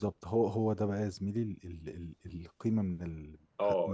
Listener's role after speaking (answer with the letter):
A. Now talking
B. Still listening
A